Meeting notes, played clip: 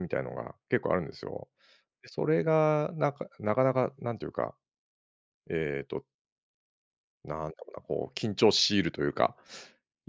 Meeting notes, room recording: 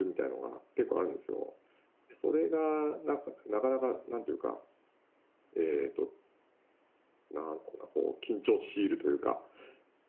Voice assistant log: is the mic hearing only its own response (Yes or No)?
Yes